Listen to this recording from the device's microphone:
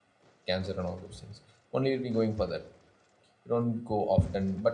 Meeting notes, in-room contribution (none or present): present